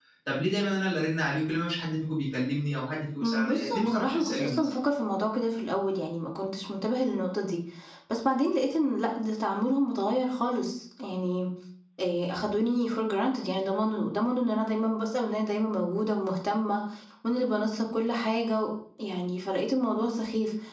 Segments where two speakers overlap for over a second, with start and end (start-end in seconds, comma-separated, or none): 3.2-4.7